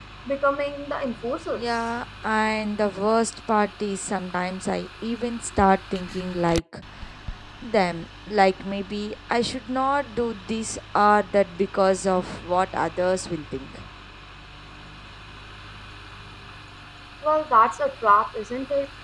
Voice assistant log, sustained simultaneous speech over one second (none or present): none